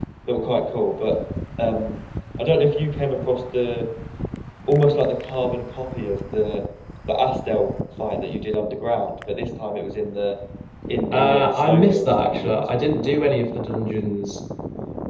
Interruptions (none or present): present